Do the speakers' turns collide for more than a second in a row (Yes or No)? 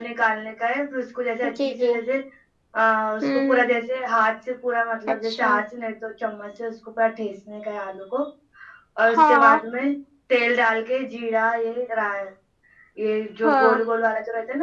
No